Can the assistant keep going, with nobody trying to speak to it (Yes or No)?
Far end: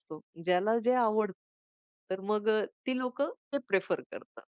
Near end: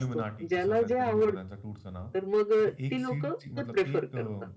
No